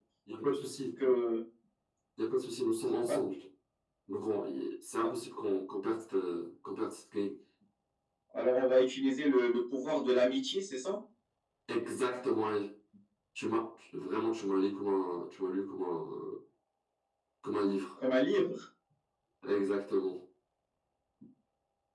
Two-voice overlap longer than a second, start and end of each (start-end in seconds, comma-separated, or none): none